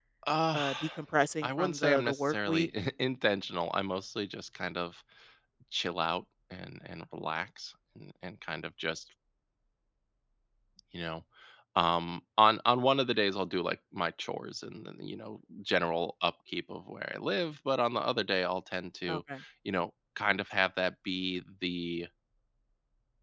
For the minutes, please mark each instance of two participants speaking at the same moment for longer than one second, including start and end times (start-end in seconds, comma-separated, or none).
1.4-2.7